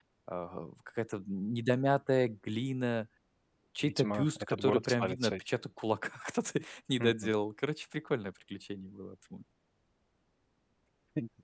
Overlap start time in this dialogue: 3.8 s

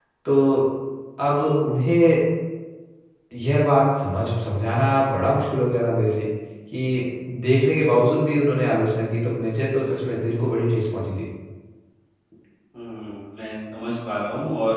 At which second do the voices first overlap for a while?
none

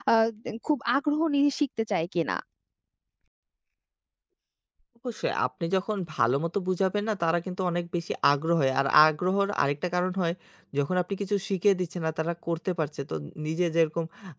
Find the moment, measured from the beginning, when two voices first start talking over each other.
none

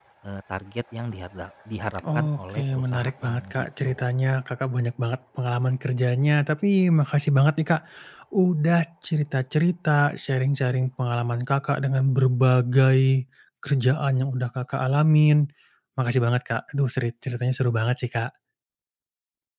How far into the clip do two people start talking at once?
2.0 s

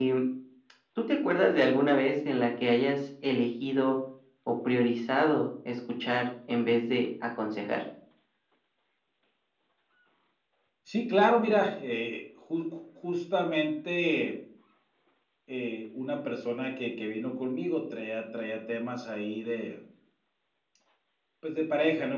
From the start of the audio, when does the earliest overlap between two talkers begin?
none

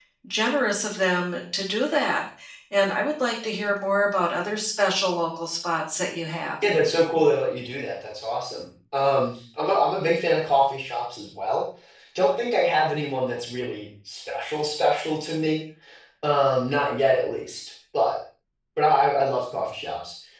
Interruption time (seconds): none

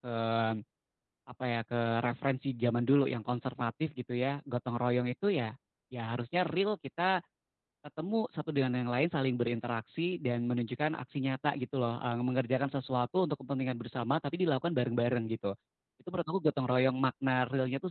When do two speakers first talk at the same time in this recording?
none

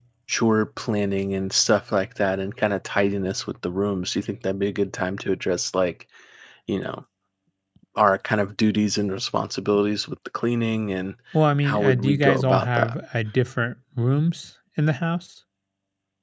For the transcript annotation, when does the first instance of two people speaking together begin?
11.6 s

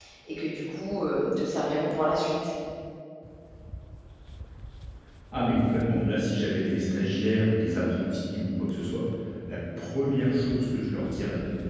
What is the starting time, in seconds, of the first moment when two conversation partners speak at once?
none

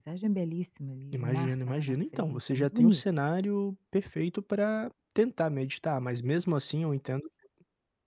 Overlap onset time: 1.1 s

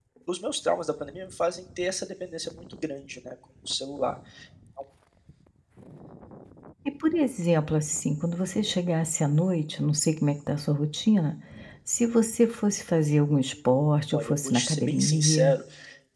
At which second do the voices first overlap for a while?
14.1 s

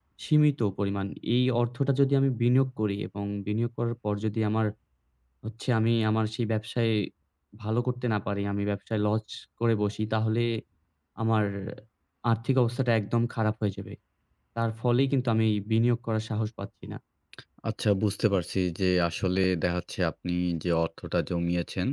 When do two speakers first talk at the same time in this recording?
none

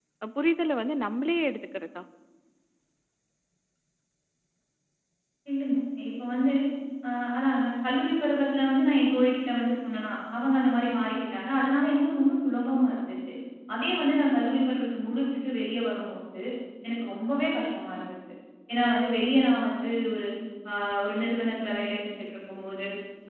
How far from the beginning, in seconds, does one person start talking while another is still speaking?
none

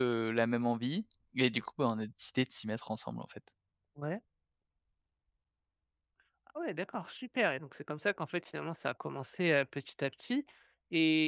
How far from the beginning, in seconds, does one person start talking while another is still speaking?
none

